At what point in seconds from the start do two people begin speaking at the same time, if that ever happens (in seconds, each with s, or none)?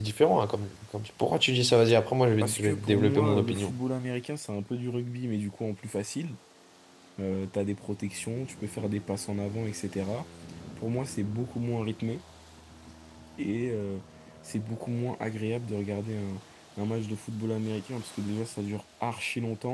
2.4 s